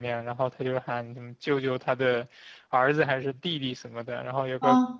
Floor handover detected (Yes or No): No